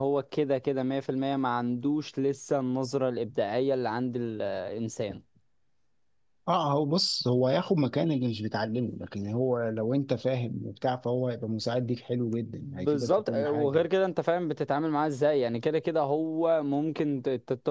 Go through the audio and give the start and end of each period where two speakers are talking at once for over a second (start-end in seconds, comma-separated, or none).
12.6-13.8